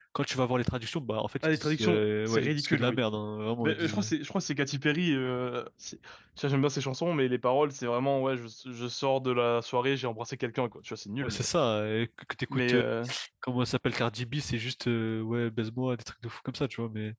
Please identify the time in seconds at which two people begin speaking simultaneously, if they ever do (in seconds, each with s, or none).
1.4 s